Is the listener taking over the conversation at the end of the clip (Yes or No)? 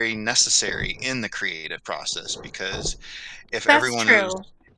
No